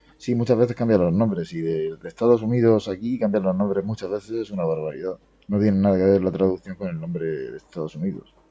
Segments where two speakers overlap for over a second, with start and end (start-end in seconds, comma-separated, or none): none